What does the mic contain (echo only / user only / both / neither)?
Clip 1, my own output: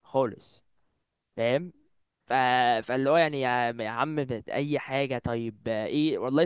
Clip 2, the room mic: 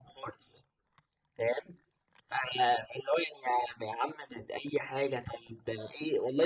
echo only